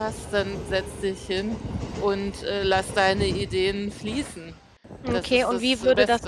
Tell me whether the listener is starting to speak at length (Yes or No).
Yes